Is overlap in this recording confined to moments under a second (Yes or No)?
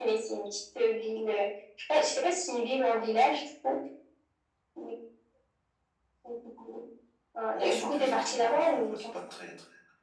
No